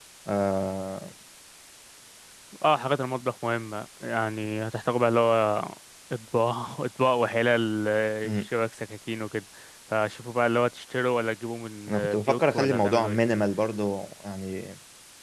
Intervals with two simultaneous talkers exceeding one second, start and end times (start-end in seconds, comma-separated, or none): 11.9-13.2